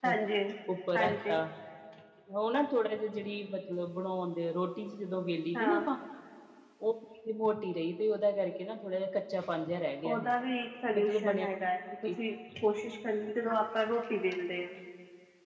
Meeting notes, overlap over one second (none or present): none